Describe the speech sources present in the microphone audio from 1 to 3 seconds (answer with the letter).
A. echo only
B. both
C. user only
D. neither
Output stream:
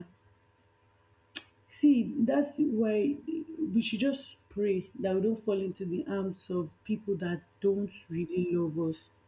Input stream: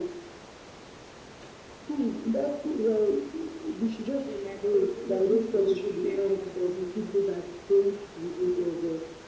A